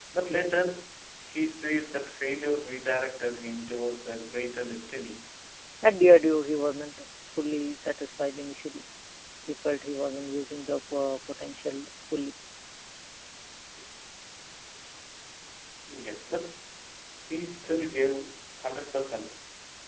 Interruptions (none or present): none